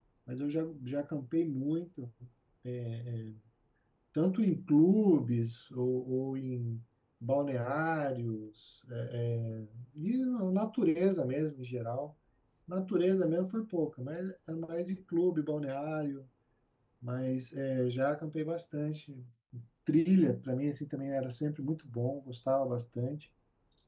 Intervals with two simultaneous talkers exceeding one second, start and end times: none

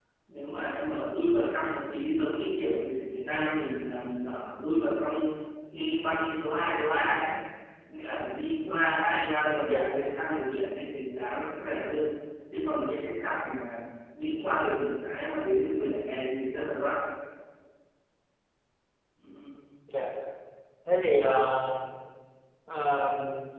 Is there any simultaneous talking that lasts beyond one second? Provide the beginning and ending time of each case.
none

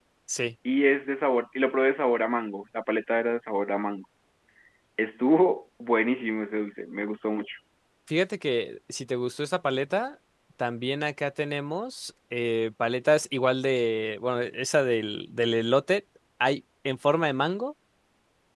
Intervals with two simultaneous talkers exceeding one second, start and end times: none

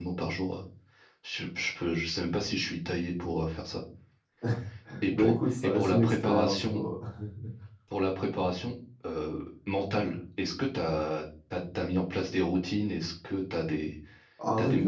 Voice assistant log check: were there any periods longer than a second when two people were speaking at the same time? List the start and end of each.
5.1-6.8

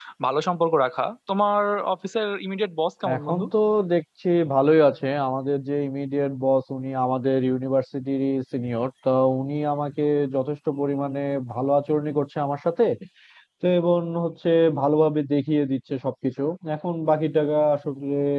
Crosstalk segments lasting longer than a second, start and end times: none

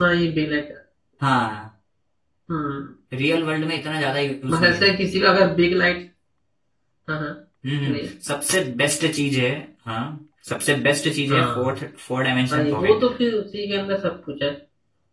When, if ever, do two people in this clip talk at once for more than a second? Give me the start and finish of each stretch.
none

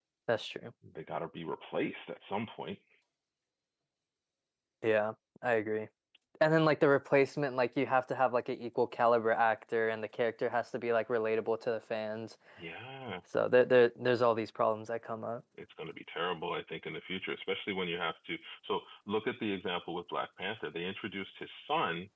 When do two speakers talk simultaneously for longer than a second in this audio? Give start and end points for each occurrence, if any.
none

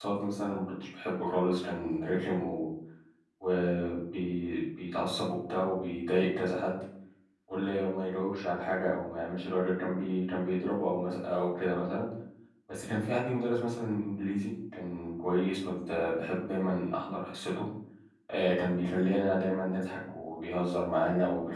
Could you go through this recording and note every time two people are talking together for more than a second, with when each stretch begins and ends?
none

